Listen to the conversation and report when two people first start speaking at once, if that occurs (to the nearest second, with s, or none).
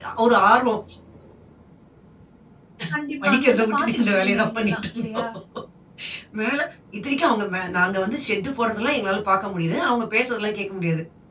3 s